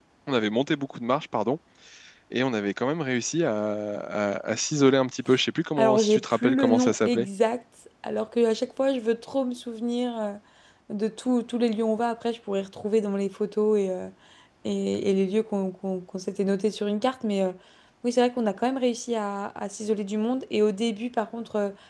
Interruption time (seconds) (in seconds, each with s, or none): 5.8 s